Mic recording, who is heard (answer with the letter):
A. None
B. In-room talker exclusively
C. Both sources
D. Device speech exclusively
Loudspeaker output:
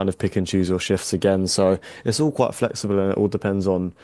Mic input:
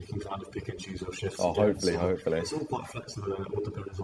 C